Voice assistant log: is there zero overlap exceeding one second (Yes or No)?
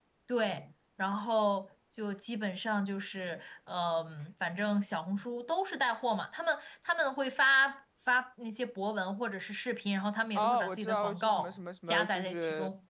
No